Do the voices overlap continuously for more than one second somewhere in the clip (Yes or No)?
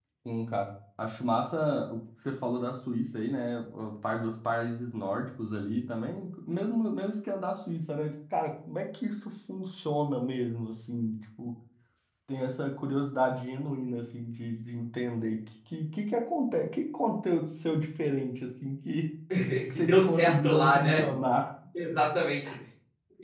Yes